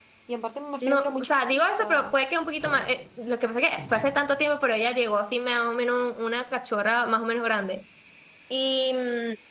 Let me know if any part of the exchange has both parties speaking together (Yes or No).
Yes